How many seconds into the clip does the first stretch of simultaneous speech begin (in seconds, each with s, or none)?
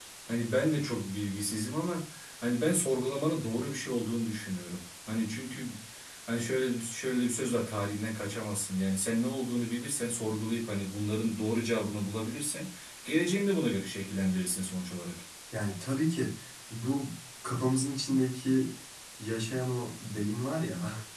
none